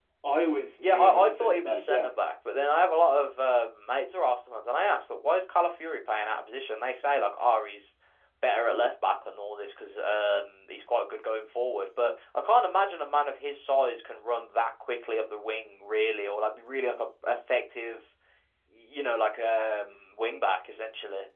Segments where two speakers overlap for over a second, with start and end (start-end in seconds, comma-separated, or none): 0.8-2.1